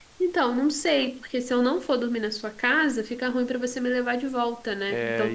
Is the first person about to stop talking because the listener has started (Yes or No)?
Yes